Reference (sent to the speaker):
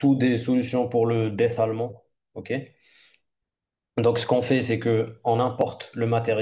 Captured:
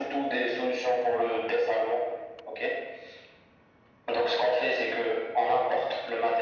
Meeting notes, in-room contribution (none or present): none